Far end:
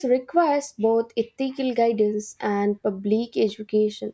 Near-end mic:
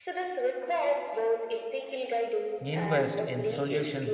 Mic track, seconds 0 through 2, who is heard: echo only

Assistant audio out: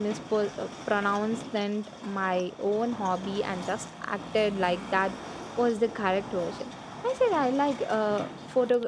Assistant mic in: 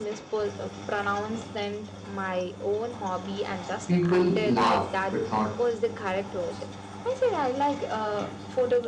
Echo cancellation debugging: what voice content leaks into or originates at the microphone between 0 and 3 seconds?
echo only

